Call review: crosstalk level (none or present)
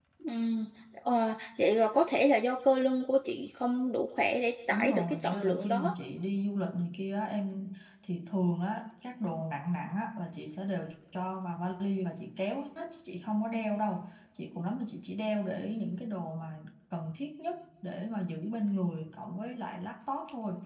present